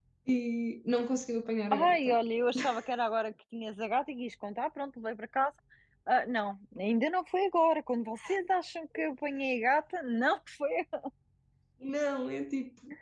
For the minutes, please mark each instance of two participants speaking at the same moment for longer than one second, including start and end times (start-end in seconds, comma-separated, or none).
none